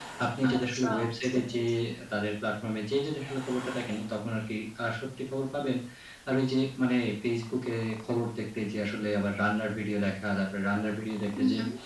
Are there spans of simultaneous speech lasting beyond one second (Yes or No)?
Yes